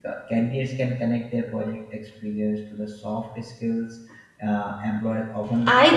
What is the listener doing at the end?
taking over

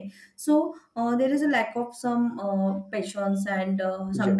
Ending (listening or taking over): listening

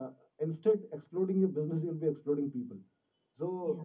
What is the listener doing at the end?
listening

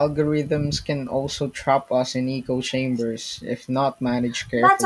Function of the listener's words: taking over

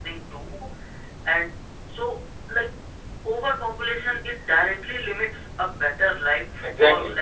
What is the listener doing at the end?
taking over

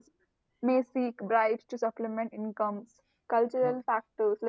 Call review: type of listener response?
listening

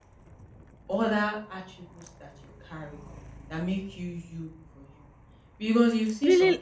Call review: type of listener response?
taking over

